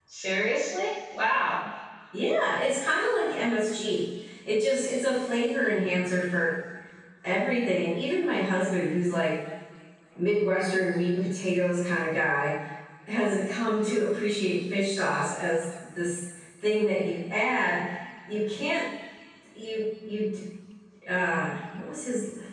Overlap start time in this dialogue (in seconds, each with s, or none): none